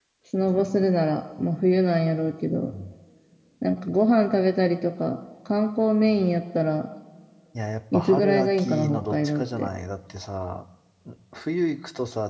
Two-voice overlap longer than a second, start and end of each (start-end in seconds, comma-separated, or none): 7.9-9.7